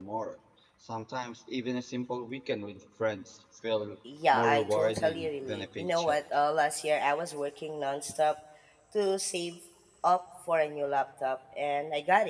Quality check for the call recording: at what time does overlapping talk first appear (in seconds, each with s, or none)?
4.3 s